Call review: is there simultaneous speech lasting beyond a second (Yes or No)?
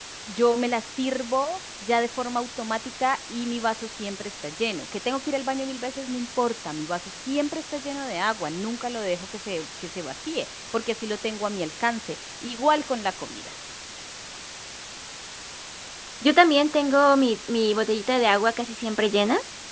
No